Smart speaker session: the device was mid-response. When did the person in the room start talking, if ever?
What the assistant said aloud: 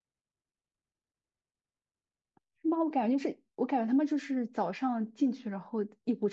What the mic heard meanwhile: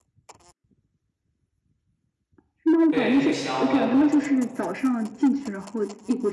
2.9 s

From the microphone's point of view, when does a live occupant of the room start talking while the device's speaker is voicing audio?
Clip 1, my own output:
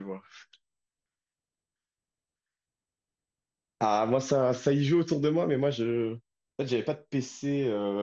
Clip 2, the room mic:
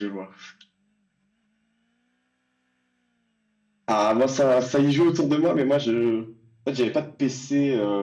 none

